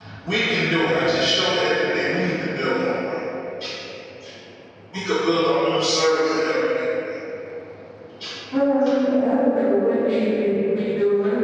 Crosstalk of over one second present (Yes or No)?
No